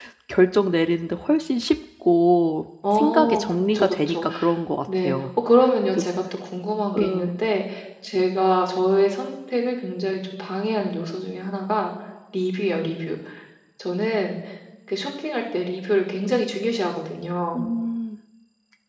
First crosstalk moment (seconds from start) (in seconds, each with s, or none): 3.0 s